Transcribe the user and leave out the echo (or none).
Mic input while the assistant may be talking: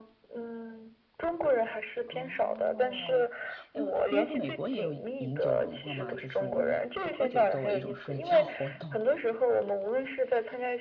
哦，因为因为美国也有饮酒文化嘛，就是我们喝酒作为一种社交活动，